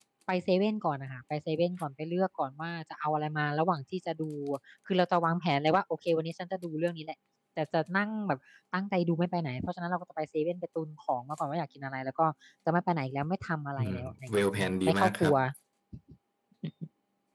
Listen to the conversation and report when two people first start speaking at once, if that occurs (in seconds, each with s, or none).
13.8 s